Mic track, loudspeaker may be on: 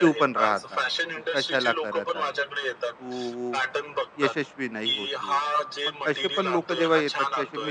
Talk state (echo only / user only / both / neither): both